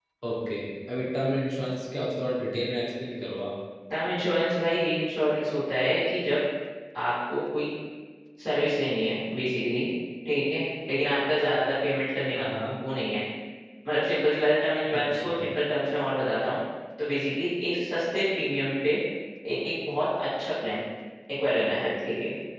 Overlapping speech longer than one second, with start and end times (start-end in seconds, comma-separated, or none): none